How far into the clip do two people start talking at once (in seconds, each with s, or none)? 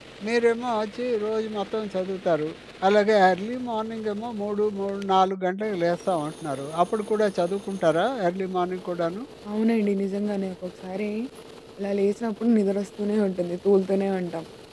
none